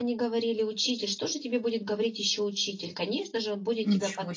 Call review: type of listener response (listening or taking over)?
listening